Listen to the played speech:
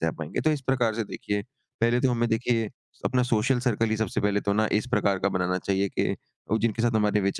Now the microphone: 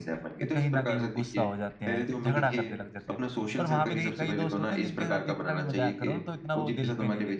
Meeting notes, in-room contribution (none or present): present